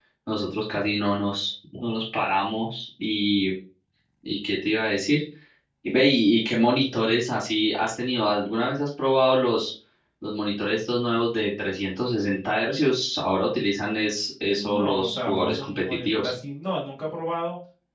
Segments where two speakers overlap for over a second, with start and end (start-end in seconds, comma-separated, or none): 14.6-16.3